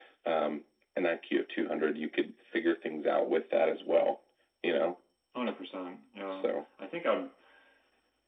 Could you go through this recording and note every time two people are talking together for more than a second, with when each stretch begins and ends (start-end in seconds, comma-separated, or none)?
none